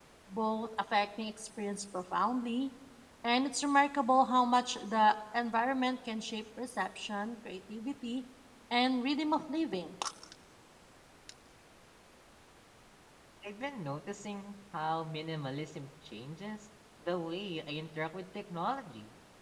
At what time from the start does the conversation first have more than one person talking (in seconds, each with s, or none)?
none